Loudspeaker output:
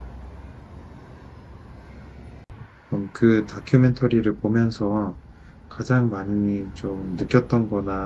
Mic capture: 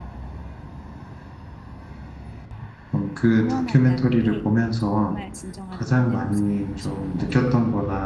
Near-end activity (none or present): present